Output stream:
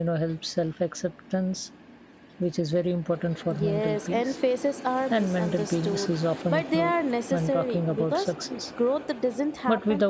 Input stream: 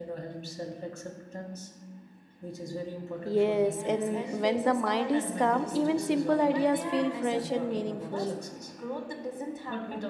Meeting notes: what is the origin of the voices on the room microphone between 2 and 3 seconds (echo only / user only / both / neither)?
echo only